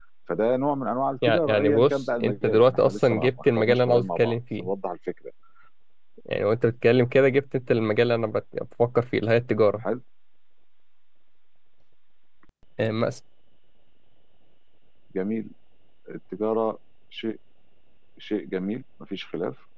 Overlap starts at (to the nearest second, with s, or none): 1 s